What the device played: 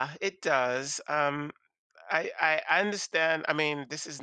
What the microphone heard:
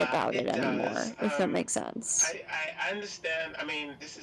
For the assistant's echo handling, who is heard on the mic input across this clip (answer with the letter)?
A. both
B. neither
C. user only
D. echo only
A